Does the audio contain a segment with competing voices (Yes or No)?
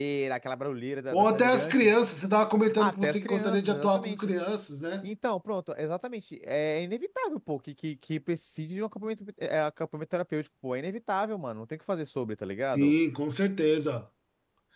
Yes